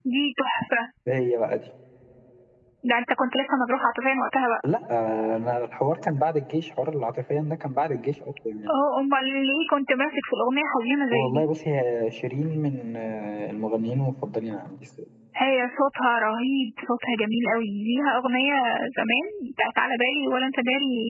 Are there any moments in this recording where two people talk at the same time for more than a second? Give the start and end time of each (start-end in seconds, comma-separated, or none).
none